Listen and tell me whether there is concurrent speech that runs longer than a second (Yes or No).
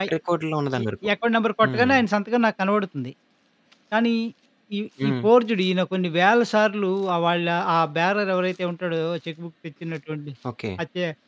No